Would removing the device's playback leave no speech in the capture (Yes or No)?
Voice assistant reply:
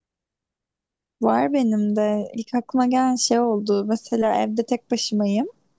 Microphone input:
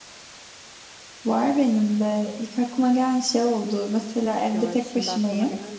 No